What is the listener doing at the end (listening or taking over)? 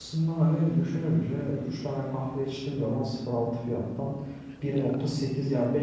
listening